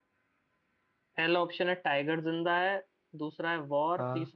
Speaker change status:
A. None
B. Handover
A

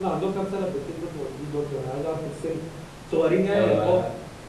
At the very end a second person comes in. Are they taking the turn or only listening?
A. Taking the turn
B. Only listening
A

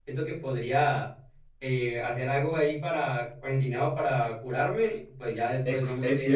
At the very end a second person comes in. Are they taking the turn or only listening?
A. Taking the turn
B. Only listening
A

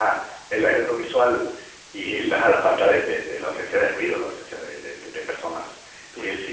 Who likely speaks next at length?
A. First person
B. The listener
A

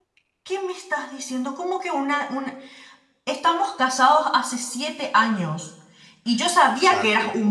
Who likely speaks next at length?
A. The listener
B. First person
B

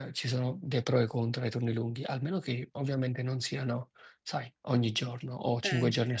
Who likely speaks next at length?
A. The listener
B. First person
A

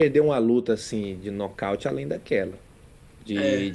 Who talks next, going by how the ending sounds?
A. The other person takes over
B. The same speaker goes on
B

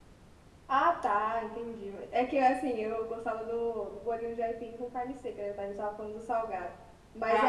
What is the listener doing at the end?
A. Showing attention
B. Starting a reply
A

